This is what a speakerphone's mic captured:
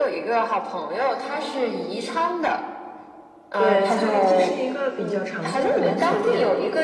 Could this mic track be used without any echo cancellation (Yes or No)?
No